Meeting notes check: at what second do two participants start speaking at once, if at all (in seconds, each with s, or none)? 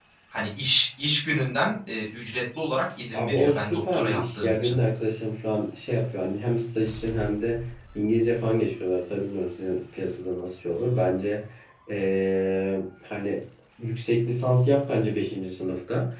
3.1 s